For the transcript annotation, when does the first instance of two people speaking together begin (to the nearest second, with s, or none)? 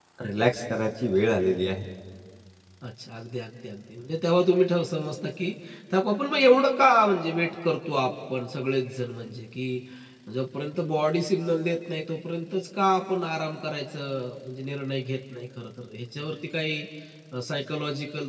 none